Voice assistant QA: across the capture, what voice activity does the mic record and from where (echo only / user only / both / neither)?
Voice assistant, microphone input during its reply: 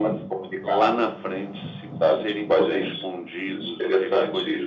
echo only